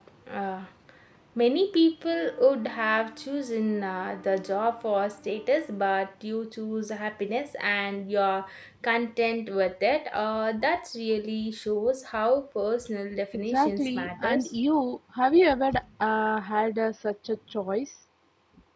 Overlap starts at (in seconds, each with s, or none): 13.3 s